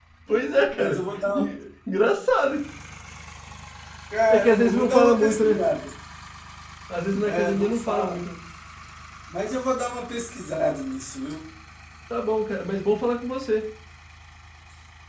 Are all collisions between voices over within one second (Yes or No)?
No